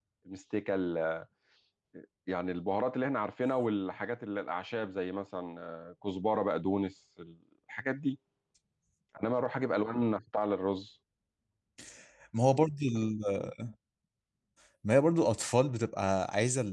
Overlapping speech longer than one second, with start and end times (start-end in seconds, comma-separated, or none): none